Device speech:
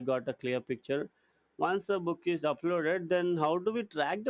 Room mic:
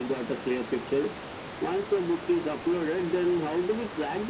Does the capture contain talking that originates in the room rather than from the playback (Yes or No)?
No